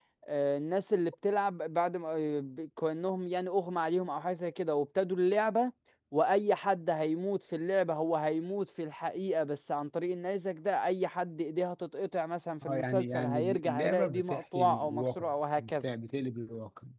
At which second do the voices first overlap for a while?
12.6 s

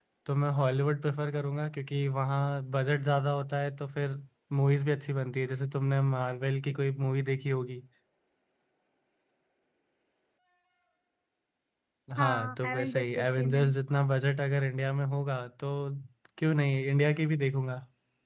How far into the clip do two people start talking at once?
12.2 s

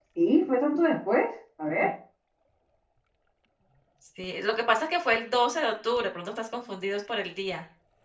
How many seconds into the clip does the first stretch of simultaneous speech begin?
none

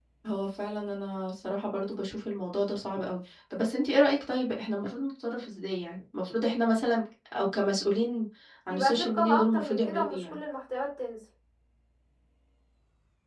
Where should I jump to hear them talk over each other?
8.7 s

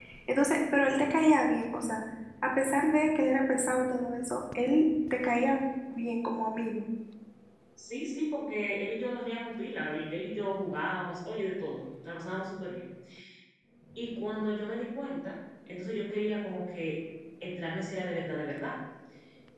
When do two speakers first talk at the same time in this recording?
none

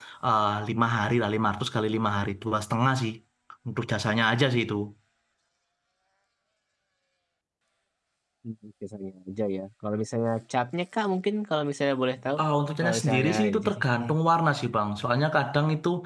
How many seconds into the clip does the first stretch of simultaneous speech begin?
12.8 s

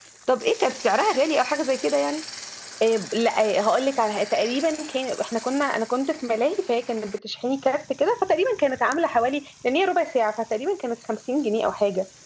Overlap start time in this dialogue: none

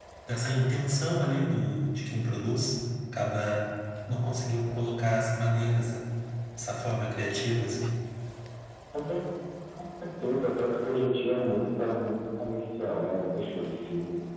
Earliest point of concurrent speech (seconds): none

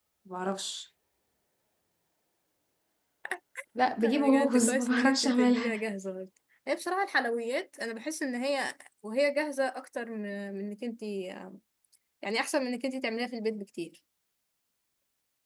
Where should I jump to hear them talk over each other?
4.0 s

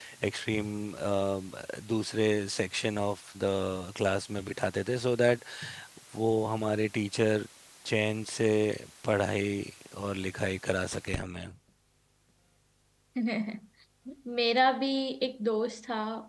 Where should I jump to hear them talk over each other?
none

